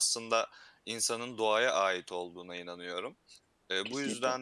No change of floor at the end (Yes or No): Yes